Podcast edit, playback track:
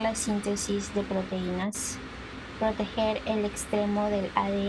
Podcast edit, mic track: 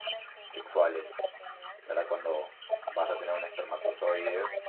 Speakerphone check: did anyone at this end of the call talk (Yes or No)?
Yes